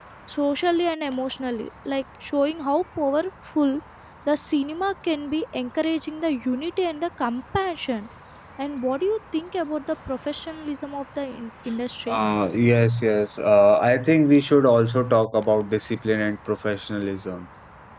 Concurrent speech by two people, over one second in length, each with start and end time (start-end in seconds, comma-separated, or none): none